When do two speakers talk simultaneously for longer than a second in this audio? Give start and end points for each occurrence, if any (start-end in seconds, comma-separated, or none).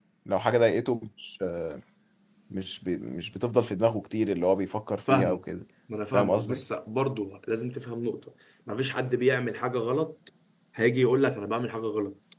none